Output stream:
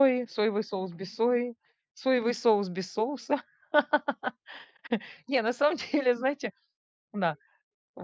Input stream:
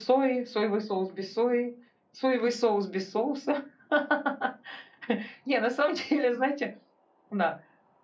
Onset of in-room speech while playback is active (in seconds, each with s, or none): none